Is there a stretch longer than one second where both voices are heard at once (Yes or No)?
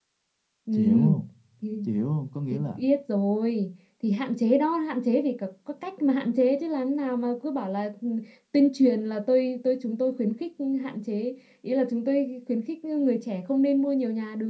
No